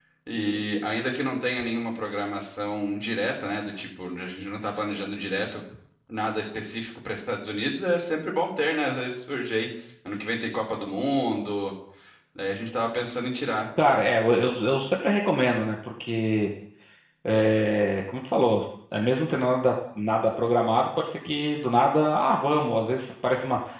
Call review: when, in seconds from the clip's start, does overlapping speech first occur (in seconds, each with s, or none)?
none